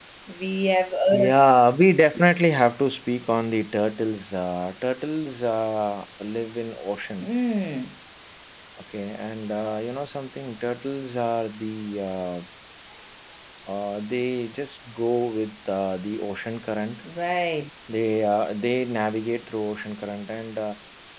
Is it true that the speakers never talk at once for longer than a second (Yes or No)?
Yes